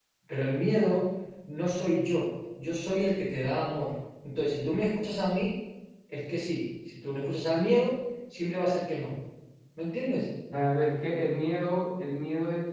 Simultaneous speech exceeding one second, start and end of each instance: none

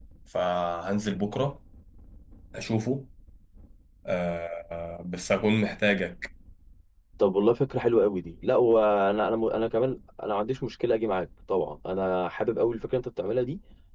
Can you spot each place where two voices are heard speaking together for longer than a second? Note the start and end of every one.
none

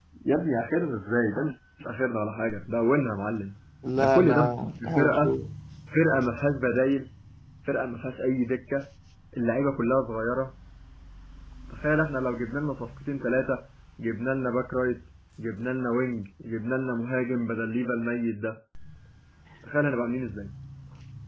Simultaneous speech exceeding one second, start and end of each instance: 4.0-5.3

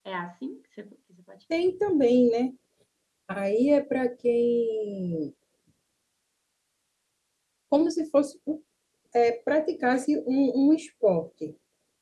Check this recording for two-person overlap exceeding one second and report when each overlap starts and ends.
none

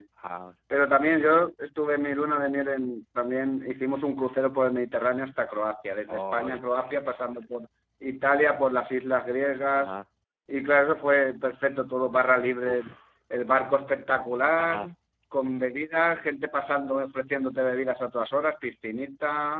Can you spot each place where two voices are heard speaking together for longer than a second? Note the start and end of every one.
6.1-7.4

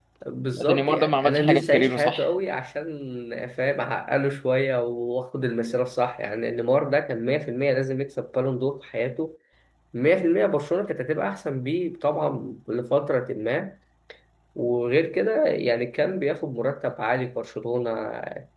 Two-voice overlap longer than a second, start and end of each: 0.5-2.3

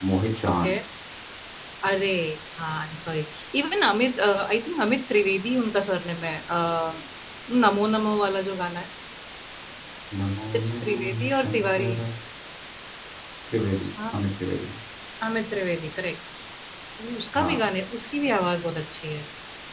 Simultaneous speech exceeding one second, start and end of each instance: 10.6-11.9

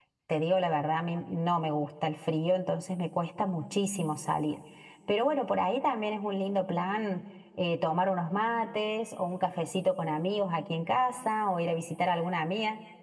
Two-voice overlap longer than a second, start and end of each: none

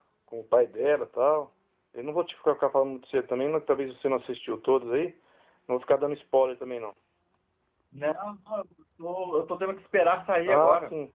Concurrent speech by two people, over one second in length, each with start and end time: none

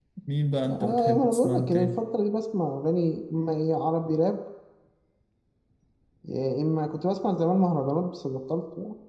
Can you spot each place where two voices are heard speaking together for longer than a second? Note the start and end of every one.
0.7-2.0

